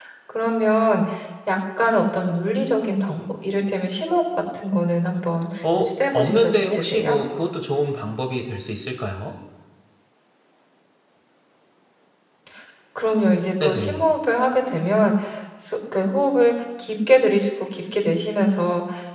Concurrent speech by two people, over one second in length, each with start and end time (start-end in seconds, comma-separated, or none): 5.8-7.2